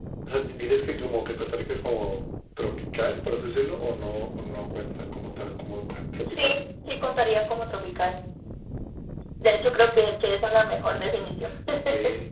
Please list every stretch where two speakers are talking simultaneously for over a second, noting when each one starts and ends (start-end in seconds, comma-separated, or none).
none